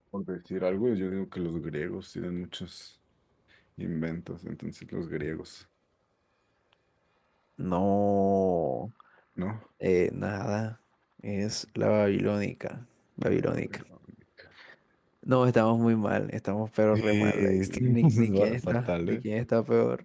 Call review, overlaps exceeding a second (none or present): present